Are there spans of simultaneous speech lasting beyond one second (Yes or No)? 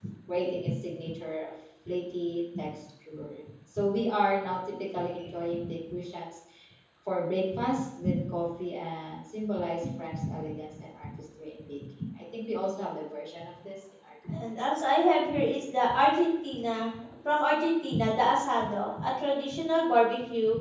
No